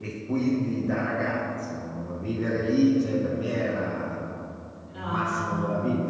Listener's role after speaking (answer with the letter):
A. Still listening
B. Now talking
A